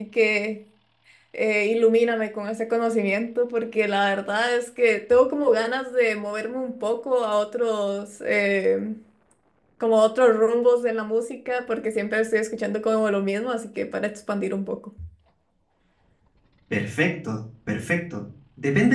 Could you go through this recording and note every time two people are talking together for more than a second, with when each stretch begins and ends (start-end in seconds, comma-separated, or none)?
none